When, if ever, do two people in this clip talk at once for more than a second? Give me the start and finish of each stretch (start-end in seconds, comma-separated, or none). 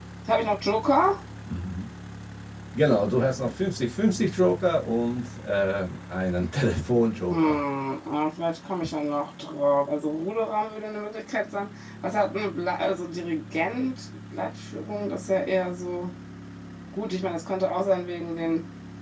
none